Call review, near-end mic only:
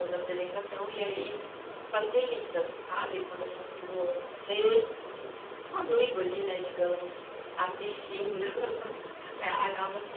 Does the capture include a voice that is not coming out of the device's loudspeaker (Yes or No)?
No